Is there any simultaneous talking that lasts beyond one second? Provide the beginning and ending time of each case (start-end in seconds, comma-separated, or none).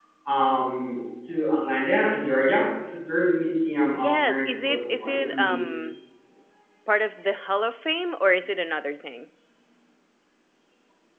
3.9-5.6